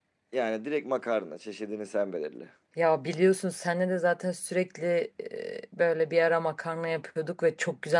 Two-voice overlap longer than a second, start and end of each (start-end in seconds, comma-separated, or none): none